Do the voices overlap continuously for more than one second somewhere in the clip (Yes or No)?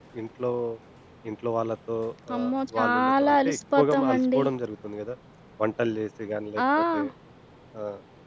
Yes